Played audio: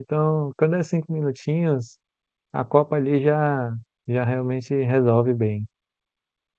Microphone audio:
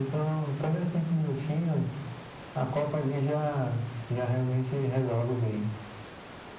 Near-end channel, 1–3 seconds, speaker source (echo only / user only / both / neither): echo only